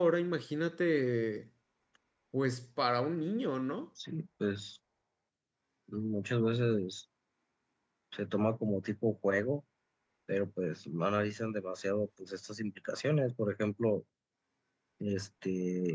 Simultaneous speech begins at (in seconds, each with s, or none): none